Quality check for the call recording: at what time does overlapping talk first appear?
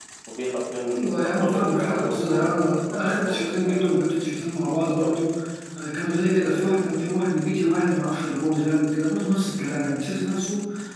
1.0 s

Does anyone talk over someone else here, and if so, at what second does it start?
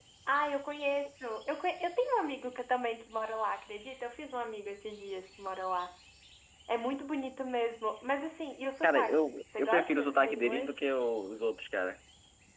8.8 s

